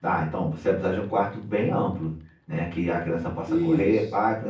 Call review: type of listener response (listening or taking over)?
listening